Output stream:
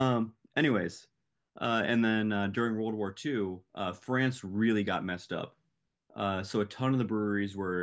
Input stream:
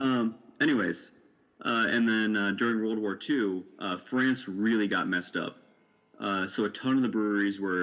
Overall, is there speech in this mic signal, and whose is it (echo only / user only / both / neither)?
echo only